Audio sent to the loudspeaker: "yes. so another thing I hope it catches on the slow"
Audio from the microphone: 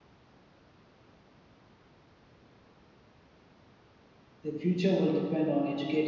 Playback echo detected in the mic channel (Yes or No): No